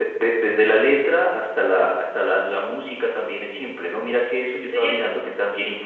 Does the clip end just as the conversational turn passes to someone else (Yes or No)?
No